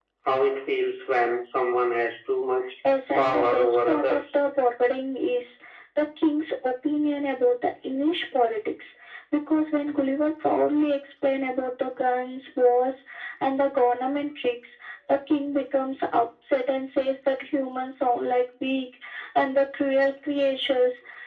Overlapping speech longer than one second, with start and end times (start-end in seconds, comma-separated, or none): 3.2-4.4